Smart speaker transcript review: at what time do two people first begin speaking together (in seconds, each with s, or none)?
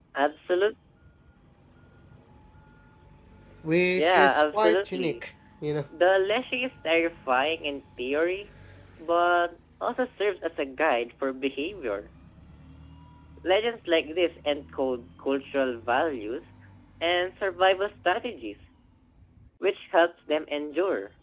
4.0 s